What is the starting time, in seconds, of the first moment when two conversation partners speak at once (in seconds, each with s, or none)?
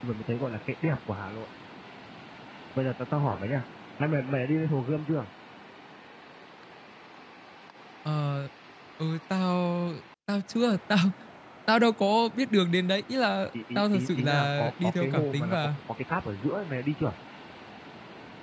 13.5 s